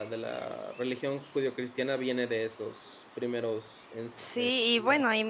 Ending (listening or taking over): taking over